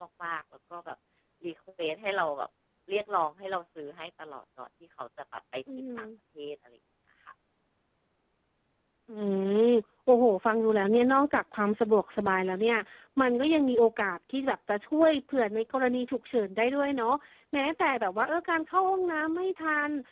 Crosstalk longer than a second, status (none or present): none